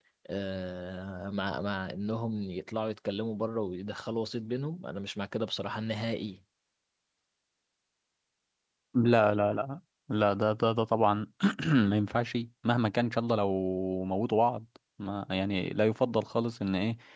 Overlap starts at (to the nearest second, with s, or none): none